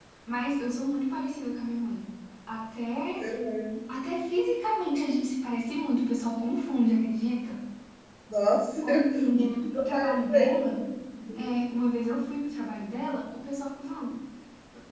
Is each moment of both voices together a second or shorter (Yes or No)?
No